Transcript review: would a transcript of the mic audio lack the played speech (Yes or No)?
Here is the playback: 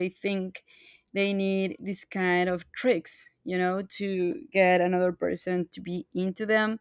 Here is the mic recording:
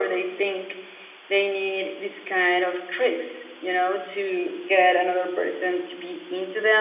No